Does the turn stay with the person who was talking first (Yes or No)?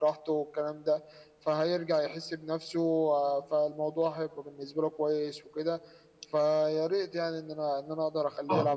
No